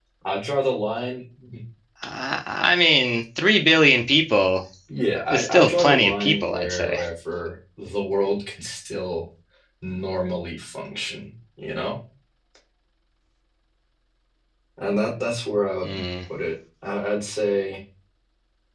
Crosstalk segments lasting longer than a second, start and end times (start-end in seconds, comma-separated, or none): 5.3-7.0